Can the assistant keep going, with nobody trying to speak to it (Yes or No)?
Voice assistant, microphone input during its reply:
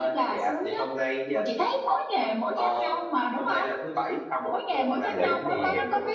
No